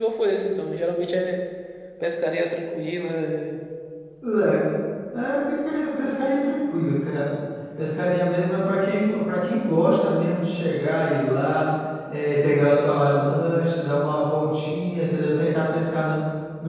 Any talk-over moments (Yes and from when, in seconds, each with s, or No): No